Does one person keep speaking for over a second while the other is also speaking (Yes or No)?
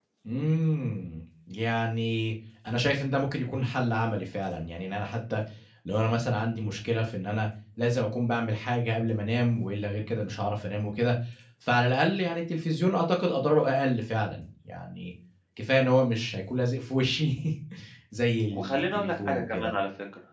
Yes